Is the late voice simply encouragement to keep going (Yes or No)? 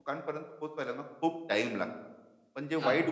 Yes